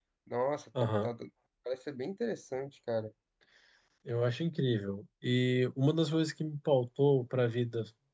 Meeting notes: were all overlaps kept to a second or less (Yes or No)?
Yes